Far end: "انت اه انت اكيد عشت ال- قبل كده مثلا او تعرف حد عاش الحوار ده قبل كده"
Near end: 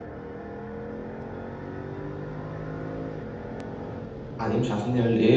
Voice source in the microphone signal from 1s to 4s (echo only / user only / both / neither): neither